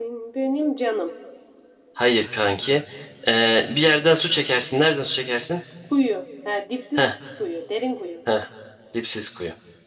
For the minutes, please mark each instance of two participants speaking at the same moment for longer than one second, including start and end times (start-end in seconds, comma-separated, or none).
none